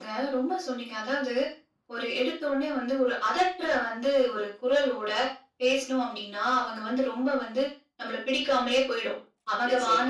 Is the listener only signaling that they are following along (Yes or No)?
Yes